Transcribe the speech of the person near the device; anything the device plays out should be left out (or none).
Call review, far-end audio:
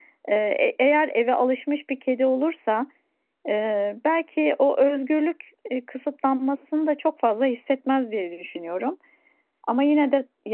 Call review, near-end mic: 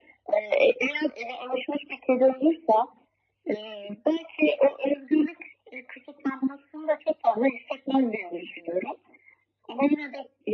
none